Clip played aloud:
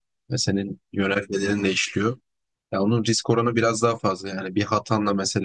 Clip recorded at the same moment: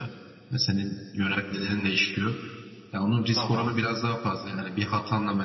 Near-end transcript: Tamam.

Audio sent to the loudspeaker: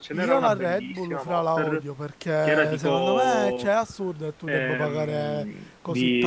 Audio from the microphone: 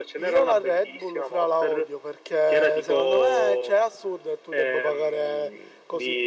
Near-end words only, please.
none

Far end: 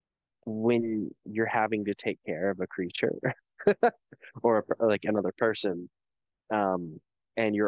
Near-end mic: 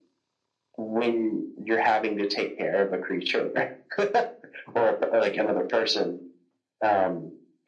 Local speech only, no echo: none

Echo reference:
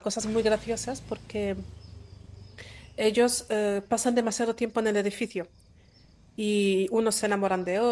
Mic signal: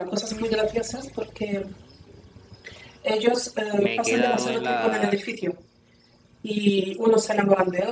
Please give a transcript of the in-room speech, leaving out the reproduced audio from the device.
me he quedado en la,

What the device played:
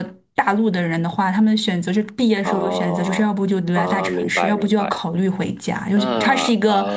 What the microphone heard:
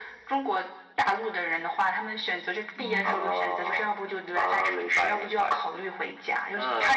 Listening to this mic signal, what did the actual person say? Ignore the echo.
哦，

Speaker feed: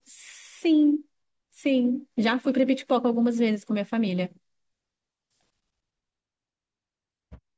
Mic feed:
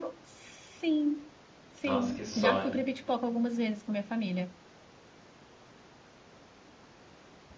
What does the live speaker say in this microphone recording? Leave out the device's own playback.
Nossa, que sonho.

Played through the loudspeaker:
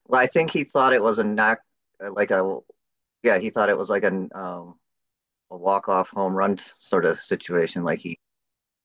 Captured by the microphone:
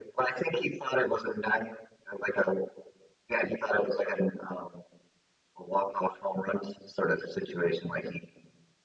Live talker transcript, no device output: none

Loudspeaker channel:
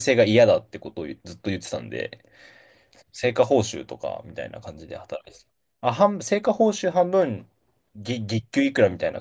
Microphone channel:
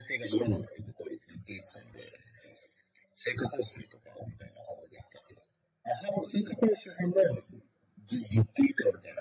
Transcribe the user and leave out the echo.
none

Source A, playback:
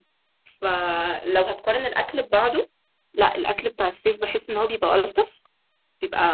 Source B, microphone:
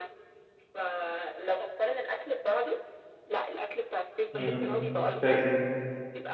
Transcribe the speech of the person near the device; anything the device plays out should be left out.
م- م. فاكر أيوه.

